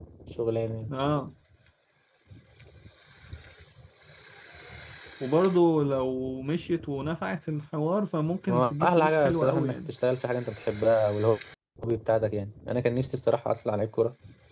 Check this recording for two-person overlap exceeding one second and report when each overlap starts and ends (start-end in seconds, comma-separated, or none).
8.5-9.9